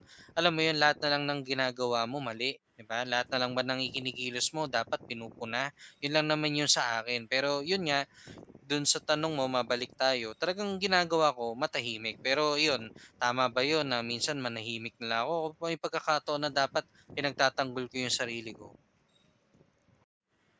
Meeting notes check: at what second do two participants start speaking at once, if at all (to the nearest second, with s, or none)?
none